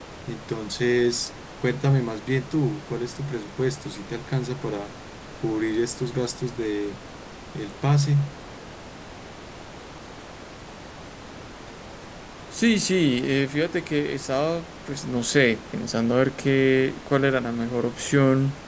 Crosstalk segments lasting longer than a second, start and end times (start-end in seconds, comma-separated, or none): none